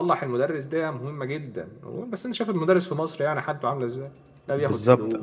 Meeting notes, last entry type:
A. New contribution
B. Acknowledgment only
A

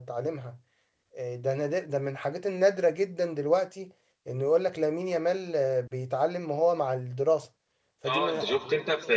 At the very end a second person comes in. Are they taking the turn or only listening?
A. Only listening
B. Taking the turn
B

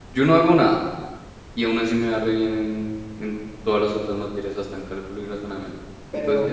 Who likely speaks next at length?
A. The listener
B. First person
A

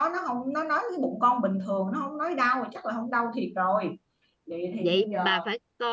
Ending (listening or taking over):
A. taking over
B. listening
A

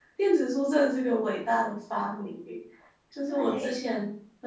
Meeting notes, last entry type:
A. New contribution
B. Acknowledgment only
B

